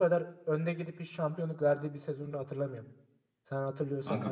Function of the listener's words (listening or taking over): taking over